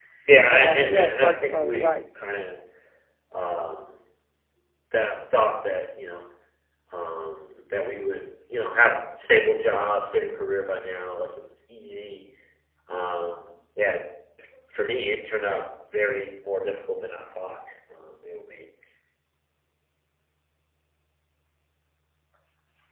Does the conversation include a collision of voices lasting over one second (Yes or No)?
Yes